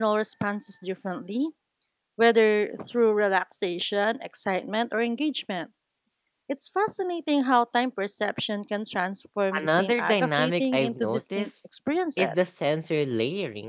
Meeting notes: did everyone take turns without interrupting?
No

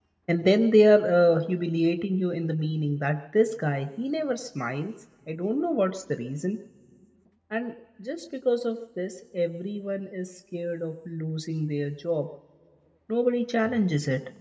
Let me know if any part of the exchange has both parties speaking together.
No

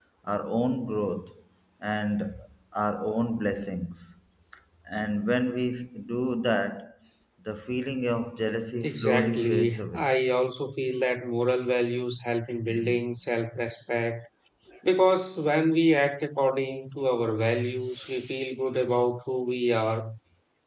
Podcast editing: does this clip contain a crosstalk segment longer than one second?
Yes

